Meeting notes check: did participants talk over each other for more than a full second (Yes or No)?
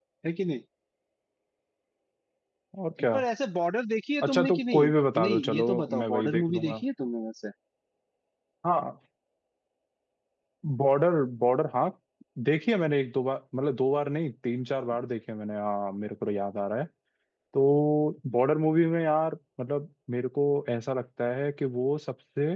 Yes